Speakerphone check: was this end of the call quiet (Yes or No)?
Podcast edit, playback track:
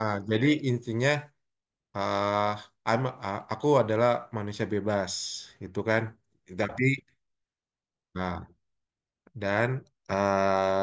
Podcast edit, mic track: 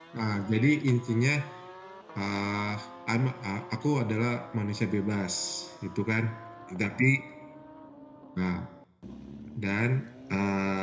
Yes